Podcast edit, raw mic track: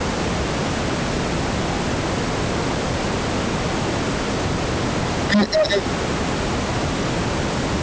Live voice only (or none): อืม